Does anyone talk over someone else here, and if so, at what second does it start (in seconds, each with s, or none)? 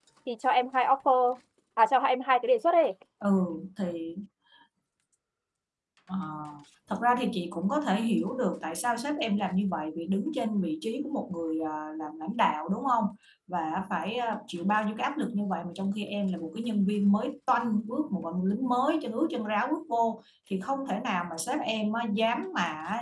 none